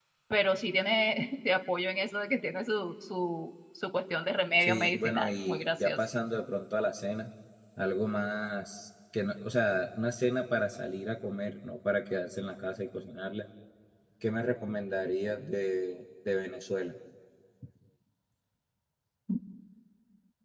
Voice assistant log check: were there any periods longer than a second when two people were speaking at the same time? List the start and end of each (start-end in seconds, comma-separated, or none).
4.6-6.0